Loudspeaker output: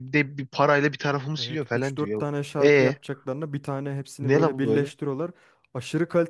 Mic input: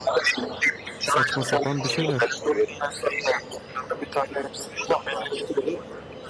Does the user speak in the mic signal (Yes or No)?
Yes